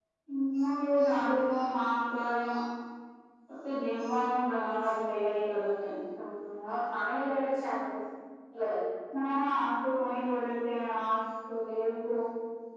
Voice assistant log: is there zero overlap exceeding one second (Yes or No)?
Yes